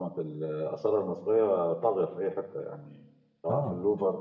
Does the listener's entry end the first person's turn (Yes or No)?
No